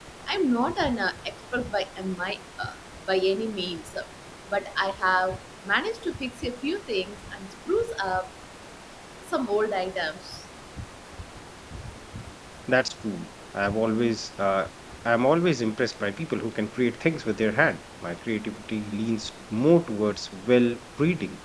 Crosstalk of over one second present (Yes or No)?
No